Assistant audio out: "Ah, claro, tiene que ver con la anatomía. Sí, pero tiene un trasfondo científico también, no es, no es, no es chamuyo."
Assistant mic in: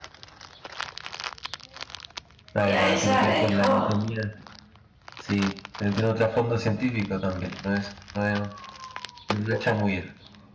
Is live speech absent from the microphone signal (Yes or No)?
No